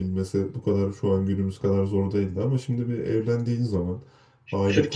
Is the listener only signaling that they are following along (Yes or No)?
No